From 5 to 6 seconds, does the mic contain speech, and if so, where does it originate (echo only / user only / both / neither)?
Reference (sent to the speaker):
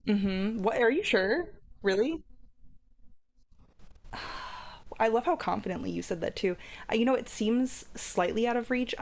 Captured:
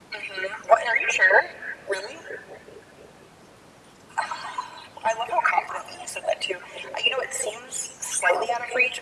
echo only